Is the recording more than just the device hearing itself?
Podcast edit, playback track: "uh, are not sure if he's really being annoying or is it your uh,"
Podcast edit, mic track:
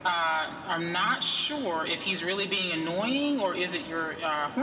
No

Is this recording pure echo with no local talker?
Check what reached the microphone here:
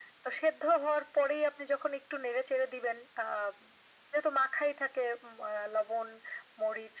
Yes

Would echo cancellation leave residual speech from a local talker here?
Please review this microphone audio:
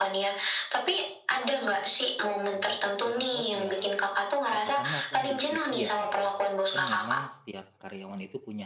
Yes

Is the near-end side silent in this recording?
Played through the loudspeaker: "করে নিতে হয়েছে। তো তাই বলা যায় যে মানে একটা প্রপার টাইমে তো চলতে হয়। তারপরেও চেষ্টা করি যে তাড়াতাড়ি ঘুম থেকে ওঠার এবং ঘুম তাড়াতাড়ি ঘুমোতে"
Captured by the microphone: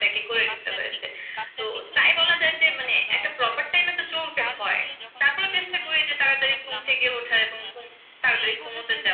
No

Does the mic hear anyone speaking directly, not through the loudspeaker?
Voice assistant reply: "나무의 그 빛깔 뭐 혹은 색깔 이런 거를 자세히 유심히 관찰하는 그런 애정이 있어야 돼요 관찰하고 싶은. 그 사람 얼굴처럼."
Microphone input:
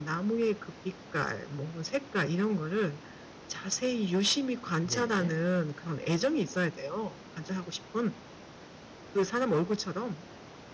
Yes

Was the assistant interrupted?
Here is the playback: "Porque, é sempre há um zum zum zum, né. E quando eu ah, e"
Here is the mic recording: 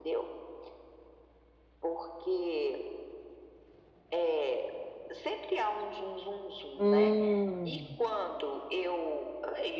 Yes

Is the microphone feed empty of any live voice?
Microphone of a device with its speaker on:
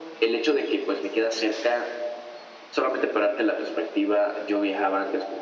Yes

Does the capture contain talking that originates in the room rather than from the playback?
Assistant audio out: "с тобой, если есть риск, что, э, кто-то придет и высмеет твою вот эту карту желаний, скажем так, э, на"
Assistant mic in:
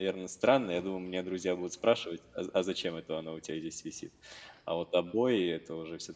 Yes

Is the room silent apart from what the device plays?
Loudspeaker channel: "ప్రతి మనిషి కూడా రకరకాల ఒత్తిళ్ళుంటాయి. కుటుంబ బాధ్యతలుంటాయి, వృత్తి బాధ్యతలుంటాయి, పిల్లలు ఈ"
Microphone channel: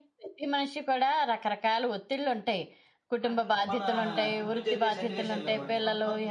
No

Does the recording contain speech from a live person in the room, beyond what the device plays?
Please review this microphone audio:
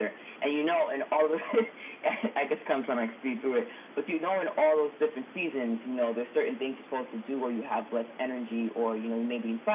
No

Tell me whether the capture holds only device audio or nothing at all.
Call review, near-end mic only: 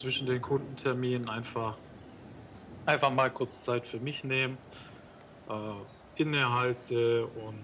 Yes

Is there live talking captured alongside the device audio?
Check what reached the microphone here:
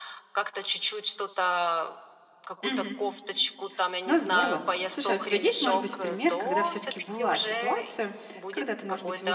Yes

